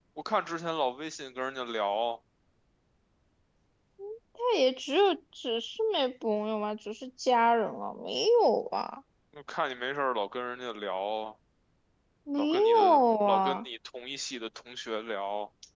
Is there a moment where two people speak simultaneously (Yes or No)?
Yes